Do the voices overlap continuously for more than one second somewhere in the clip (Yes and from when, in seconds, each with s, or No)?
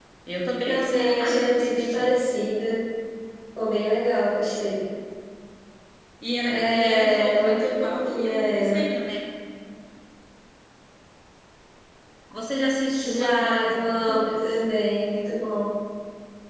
Yes, from 0.7 s